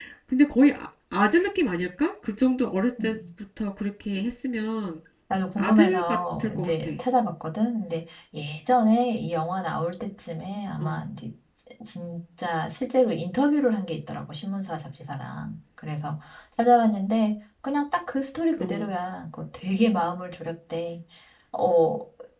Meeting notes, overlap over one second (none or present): present